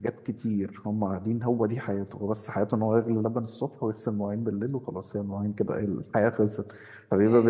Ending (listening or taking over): listening